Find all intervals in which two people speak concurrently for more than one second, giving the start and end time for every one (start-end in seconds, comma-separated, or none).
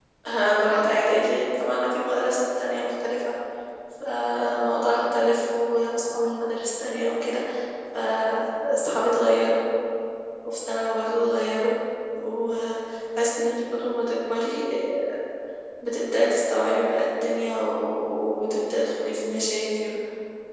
none